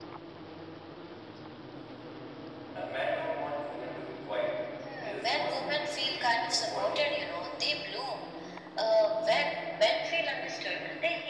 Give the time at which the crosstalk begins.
5.0 s

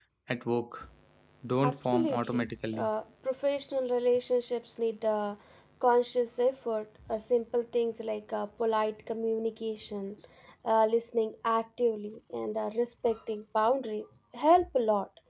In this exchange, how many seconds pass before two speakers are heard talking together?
1.6 s

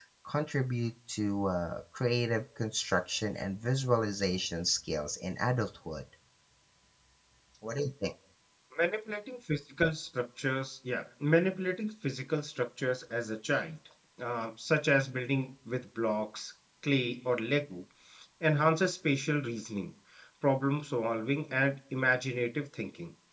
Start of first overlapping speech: none

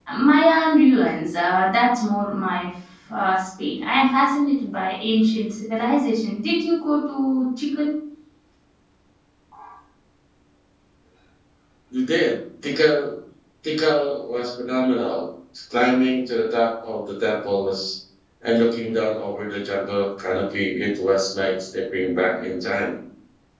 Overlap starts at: none

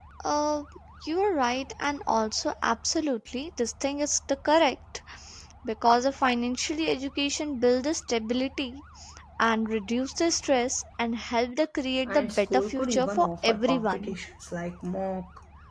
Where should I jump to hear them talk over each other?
12.1 s

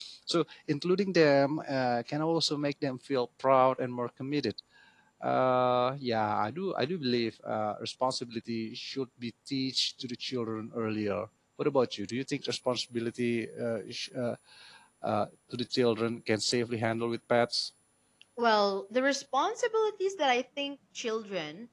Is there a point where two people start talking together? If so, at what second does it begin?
none

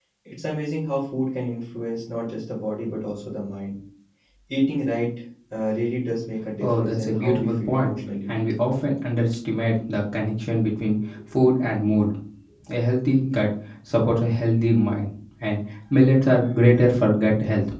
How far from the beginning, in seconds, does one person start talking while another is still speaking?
6.6 s

